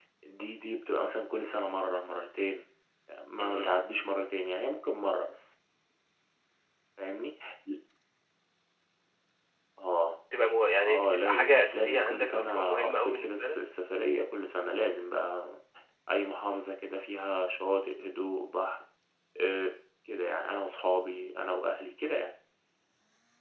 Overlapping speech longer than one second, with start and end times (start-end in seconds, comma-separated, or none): 10.8-13.6